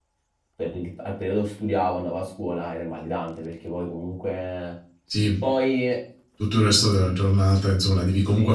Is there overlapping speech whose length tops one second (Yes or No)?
No